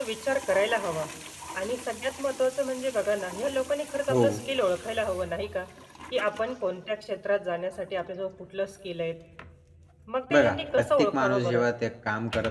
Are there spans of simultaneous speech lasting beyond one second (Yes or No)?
Yes